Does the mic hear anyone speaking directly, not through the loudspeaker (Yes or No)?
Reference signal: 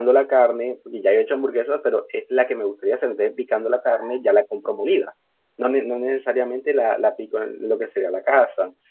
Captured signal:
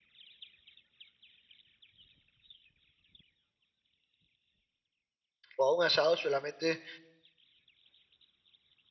Yes